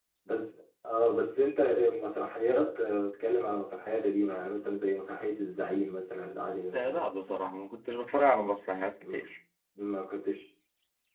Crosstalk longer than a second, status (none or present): none